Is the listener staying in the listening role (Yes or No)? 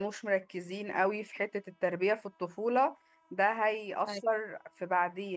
Yes